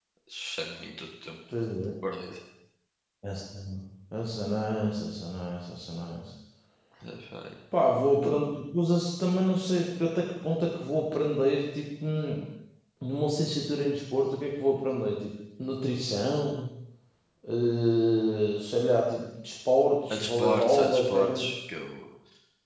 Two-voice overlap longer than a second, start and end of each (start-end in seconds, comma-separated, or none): 20.1-21.5